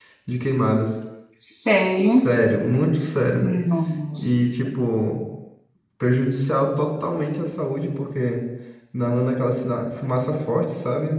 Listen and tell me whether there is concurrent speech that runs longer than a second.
No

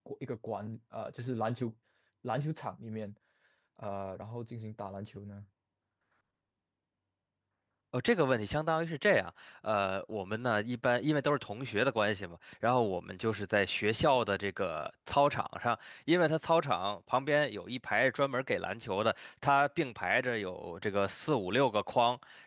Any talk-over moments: No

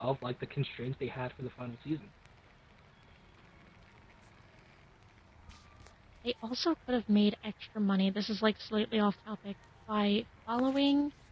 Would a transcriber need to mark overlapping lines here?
No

